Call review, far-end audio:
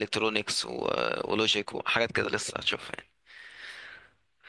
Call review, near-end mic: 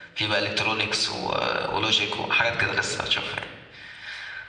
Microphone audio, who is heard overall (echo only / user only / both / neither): echo only